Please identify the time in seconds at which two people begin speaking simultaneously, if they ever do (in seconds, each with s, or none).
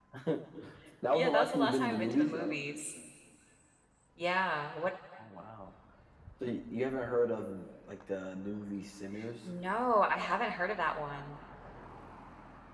1.1 s